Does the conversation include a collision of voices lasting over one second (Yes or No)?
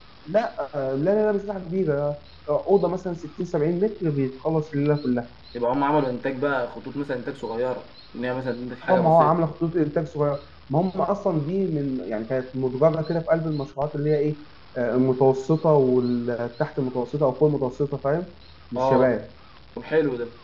No